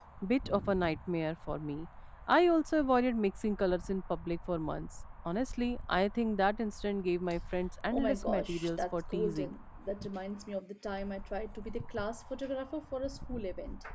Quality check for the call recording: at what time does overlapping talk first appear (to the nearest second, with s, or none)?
8 s